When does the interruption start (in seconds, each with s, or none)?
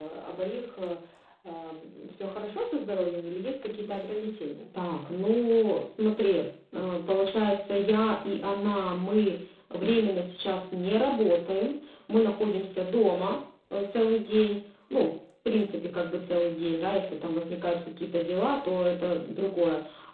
none